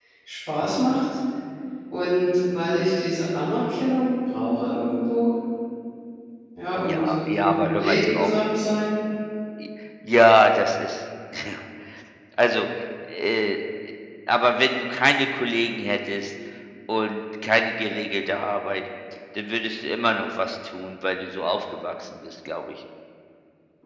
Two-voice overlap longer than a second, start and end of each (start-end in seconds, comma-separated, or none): 6.9-8.3